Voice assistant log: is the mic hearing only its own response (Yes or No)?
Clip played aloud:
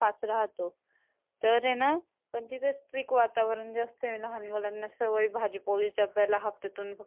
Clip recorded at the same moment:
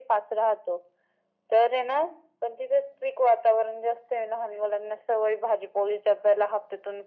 Yes